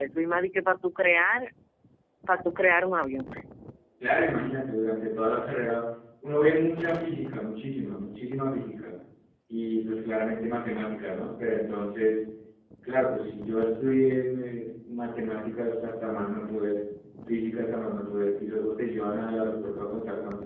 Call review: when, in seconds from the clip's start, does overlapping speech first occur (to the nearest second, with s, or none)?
none